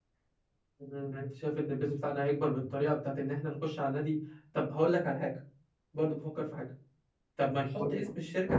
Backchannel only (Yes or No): Yes